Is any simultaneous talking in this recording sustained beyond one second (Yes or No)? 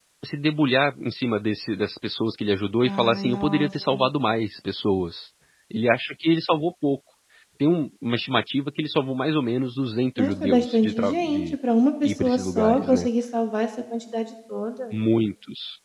Yes